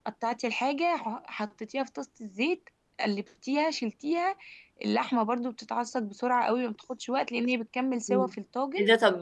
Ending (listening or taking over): taking over